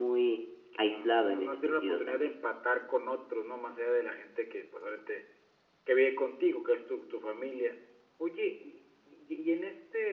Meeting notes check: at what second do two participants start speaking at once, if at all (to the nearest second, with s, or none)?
1 s